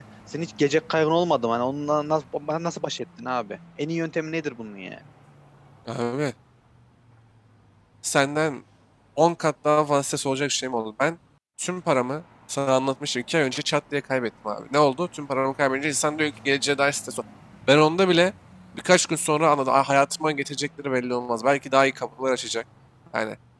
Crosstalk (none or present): none